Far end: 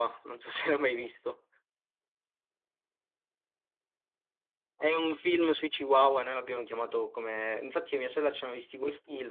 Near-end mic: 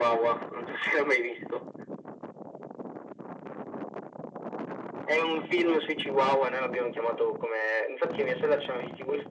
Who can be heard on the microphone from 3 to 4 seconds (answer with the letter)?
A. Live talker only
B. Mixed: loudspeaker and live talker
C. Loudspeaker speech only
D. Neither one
D